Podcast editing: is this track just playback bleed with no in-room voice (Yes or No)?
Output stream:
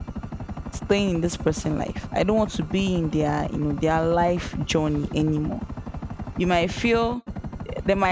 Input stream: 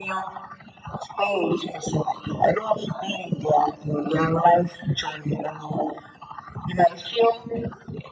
Yes